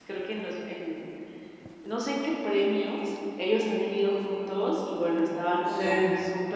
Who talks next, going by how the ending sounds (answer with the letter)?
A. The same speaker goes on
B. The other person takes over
A